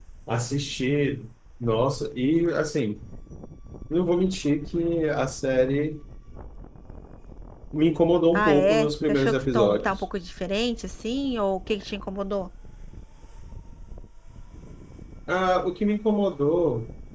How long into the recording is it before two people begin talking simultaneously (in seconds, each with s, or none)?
8.3 s